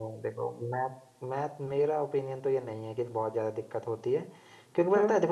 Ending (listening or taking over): listening